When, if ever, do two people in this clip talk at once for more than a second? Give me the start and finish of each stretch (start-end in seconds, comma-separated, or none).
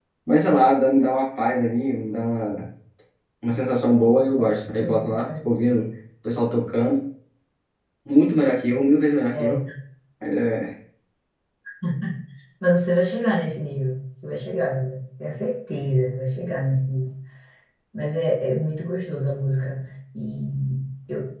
none